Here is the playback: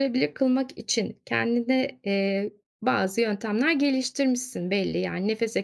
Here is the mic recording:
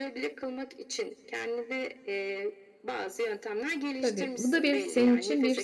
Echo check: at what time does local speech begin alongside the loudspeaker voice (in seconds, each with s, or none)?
4.0 s